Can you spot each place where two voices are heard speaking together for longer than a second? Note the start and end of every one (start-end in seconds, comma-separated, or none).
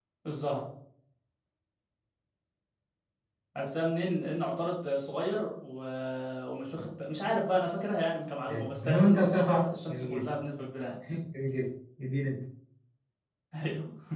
8.5-10.3